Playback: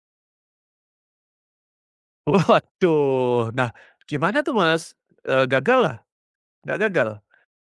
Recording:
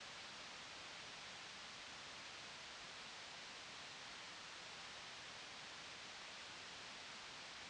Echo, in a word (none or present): none